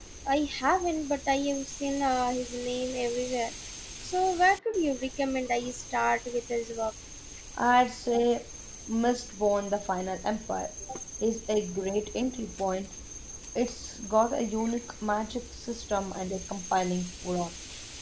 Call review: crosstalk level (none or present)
none